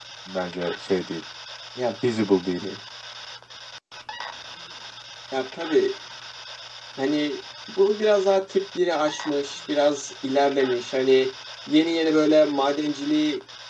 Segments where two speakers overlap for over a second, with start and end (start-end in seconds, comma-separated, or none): none